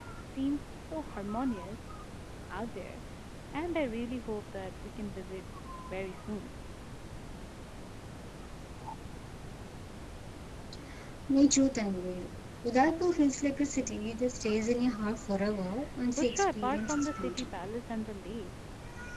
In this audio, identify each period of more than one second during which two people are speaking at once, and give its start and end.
16.1-17.5

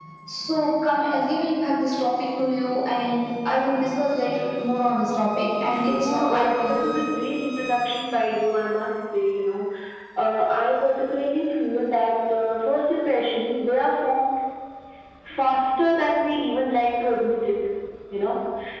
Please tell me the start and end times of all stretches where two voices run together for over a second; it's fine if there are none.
5.7-6.9

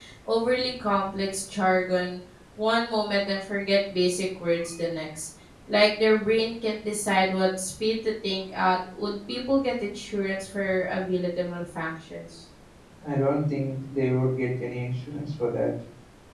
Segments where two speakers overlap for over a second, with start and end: none

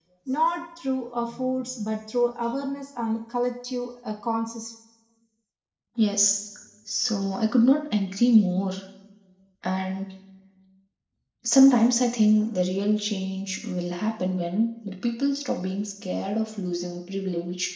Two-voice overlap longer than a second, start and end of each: none

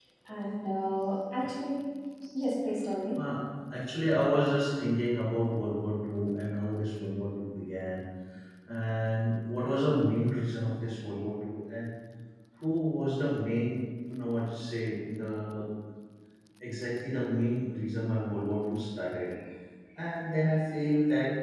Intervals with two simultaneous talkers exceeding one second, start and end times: none

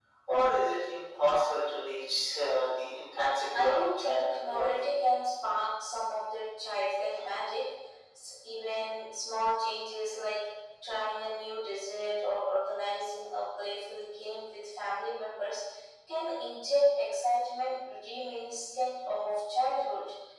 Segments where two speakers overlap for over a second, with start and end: 3.5-4.9

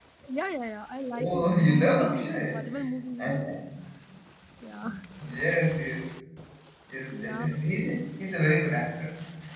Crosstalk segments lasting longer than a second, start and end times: 1.2-2.6

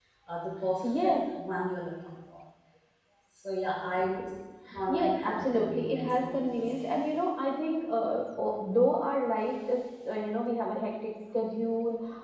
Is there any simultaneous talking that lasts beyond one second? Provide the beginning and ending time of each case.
4.9-6.9

